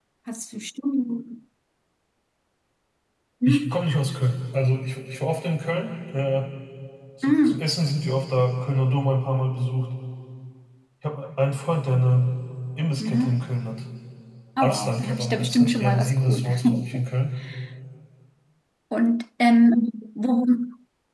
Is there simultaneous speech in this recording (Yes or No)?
Yes